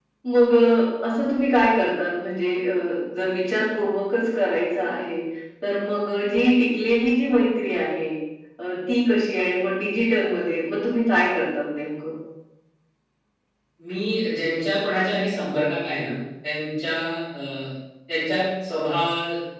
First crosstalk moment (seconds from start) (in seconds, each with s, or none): none